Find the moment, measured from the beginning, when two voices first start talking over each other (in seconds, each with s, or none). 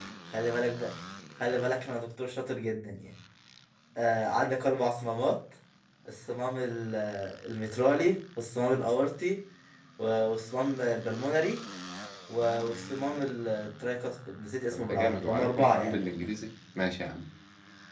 14.7 s